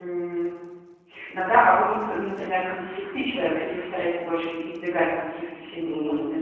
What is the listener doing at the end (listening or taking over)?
taking over